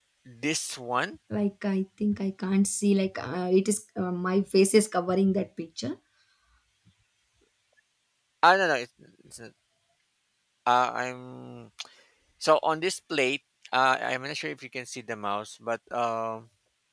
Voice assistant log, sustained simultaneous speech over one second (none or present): none